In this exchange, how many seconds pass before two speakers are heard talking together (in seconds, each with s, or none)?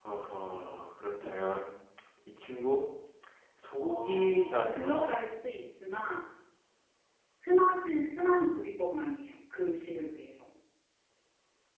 3.8 s